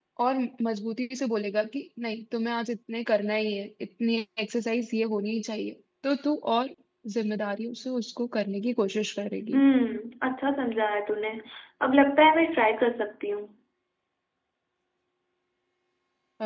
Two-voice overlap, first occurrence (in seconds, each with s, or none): none